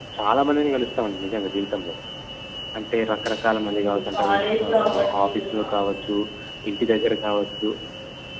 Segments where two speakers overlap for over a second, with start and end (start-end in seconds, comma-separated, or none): 3.6-5.9